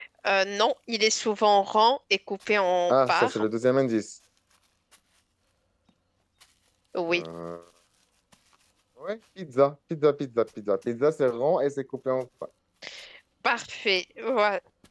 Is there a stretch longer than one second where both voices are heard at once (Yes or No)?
No